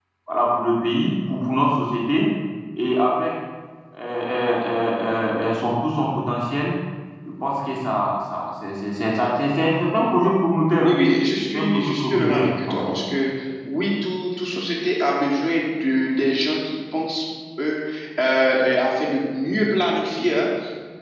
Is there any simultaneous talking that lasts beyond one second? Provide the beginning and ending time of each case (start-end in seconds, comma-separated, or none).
11.5-12.9